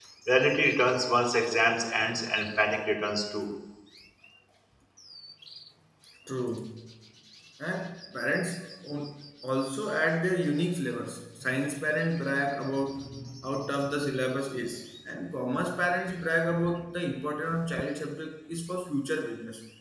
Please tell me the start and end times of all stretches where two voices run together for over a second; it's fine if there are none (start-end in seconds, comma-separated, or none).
none